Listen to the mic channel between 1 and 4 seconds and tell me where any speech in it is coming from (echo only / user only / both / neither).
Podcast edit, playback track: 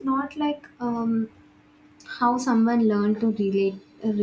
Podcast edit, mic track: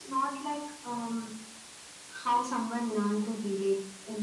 echo only